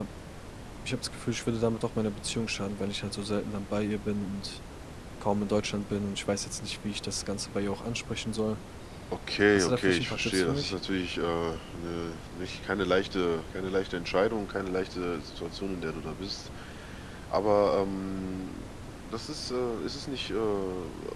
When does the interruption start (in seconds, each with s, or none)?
9.5 s